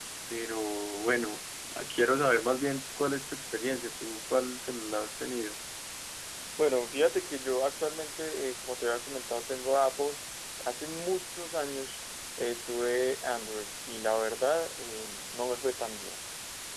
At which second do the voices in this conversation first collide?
none

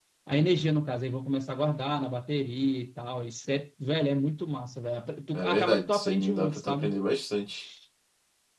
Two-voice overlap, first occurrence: 5 s

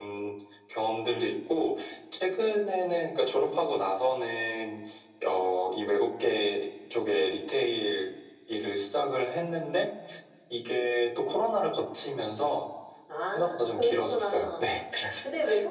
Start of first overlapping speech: 13 s

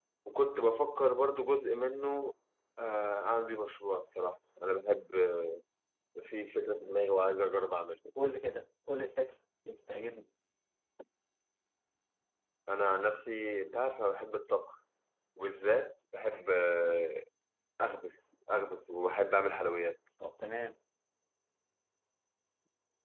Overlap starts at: none

